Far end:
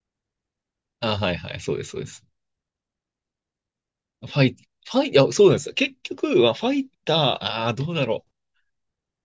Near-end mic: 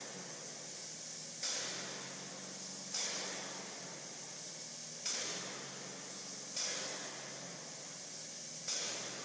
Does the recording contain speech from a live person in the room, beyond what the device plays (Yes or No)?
No